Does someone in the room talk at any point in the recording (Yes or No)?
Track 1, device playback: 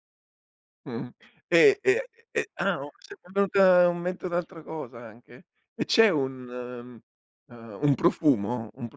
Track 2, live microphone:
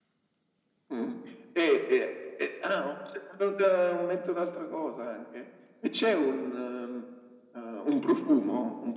No